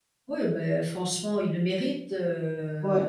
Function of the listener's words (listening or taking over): taking over